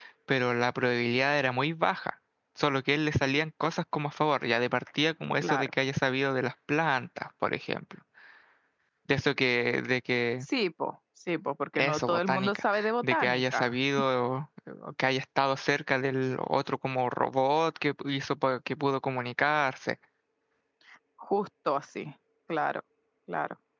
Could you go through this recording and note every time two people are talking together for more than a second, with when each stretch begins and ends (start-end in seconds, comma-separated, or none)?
11.8-13.7